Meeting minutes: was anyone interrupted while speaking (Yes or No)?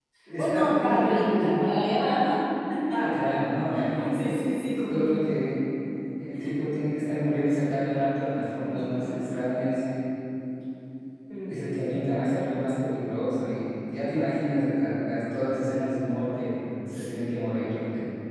Yes